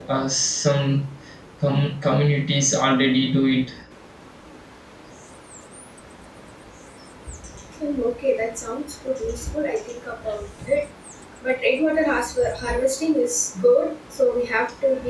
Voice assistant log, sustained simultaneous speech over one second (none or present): none